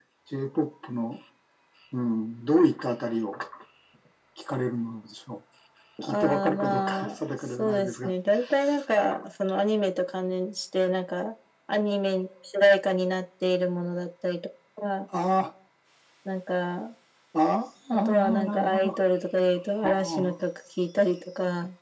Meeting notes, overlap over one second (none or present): present